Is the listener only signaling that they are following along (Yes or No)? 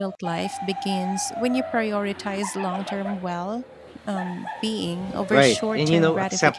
No